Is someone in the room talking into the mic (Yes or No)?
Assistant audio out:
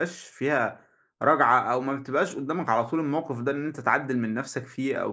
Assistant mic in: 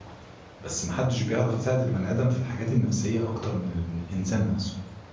Yes